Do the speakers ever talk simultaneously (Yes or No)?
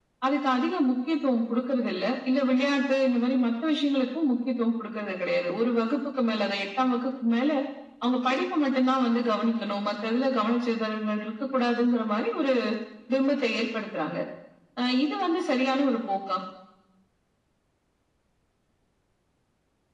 No